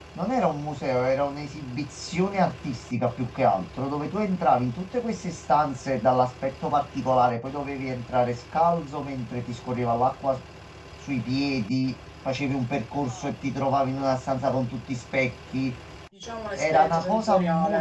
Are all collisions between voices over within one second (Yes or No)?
No